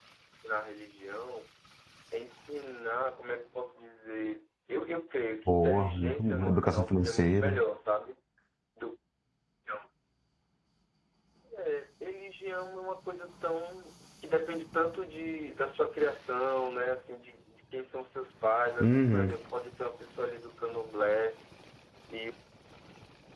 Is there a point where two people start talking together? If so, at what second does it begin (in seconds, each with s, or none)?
5.5 s